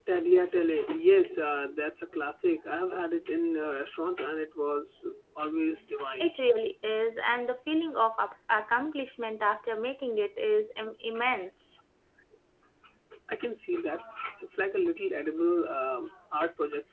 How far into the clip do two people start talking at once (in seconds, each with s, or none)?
none